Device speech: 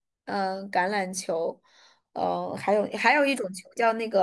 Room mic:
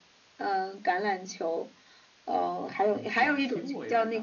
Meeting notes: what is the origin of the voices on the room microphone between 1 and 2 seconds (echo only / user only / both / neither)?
echo only